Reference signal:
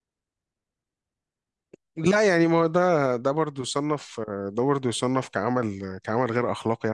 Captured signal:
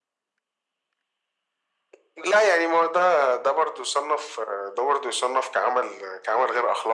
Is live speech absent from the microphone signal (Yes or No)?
Yes